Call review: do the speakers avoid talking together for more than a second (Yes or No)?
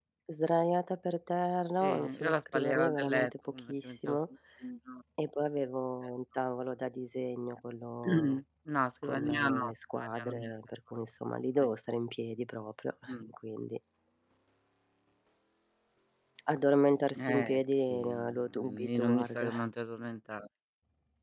No